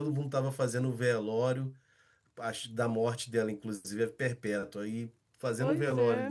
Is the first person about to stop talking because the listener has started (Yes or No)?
No